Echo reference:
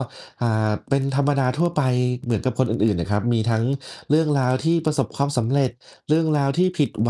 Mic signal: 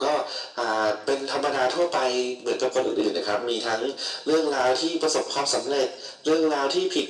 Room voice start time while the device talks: none

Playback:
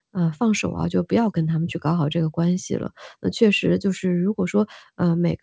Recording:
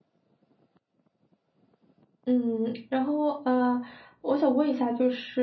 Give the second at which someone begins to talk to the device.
2.3 s

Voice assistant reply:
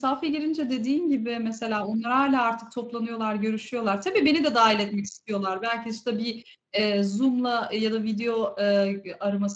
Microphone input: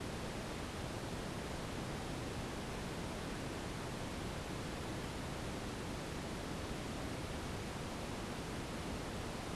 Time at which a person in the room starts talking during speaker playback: none

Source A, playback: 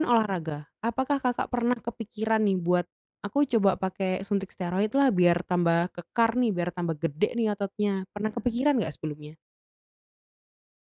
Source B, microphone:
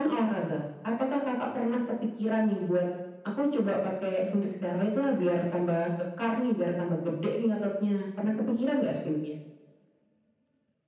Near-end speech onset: none

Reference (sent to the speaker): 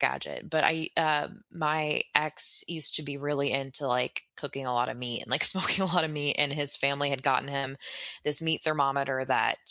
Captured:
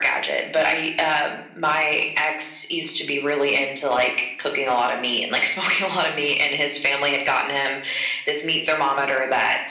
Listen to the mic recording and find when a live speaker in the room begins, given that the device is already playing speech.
none

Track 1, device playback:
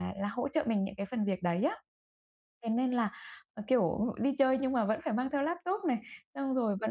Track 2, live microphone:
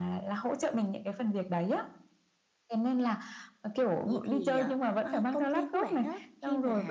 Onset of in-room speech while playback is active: 4.0 s

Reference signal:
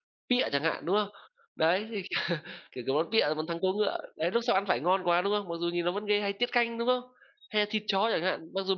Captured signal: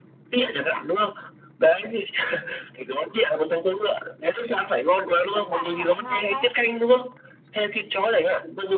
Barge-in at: 5.3 s

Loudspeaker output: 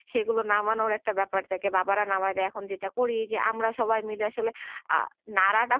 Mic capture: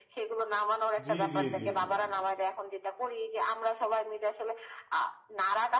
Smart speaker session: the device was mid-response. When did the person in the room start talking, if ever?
1.1 s

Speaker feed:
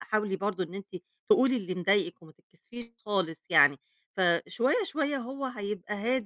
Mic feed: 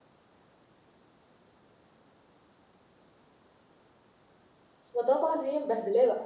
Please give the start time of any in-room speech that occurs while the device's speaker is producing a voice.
5.0 s

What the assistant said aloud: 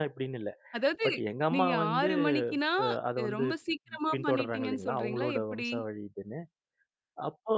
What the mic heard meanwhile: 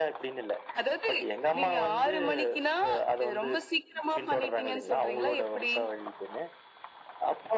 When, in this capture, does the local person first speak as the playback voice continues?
none

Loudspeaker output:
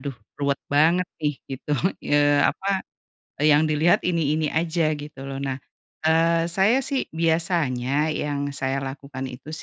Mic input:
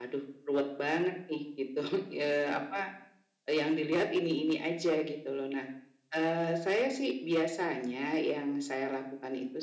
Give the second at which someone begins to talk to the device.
none

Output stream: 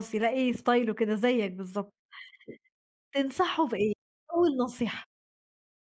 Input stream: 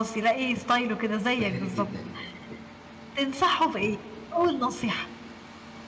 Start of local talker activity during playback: 1.4 s

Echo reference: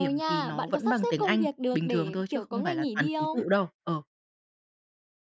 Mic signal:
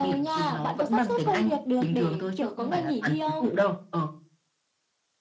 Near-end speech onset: none

